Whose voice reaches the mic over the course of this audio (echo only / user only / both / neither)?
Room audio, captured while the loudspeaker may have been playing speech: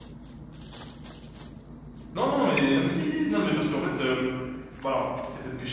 user only